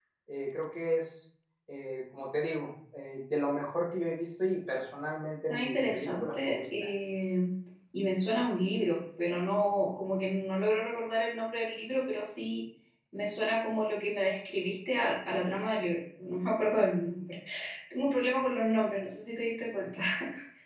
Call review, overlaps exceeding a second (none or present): present